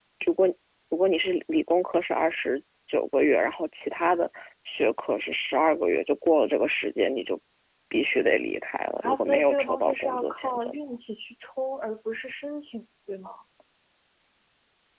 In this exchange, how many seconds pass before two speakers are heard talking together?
9.0 s

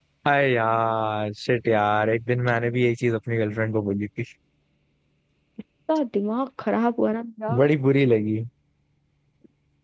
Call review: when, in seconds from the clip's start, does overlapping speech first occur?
none

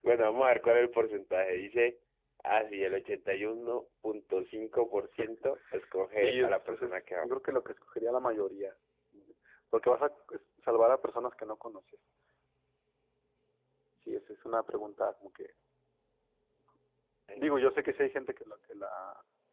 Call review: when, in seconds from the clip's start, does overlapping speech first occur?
6.1 s

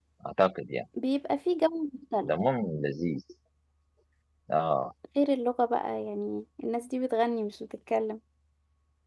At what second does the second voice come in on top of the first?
none

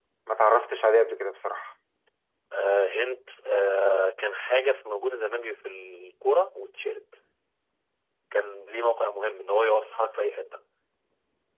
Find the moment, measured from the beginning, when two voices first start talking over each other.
none

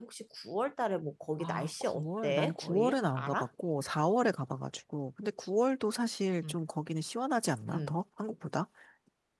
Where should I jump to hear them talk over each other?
1.4 s

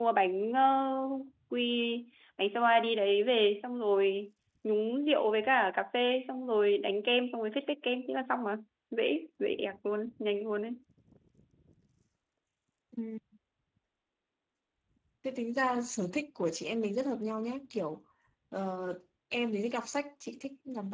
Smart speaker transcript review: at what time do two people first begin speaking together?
none

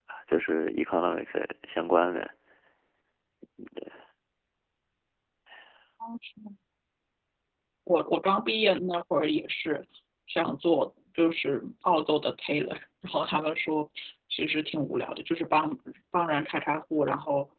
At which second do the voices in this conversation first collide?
none

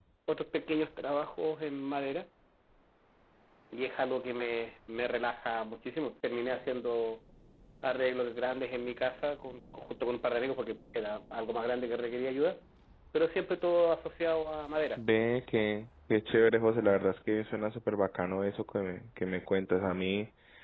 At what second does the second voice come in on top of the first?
none

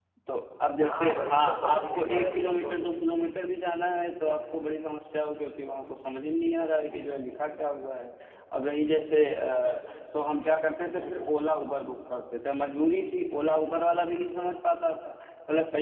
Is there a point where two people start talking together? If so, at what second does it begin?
0.8 s

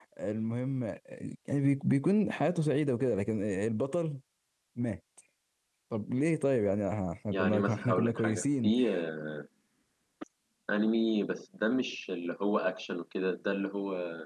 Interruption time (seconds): 7.3 s

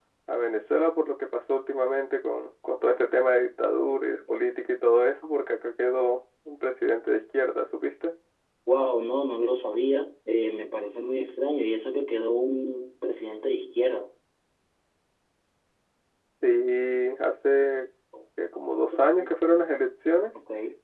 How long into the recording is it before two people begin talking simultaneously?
none

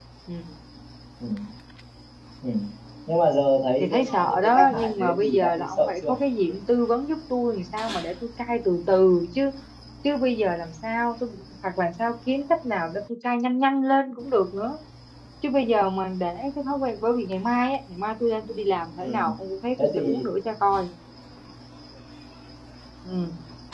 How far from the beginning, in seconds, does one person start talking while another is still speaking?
3.8 s

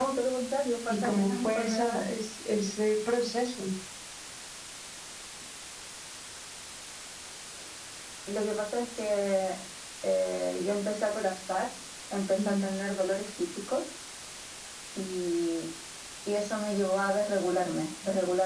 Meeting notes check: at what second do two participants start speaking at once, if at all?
0.9 s

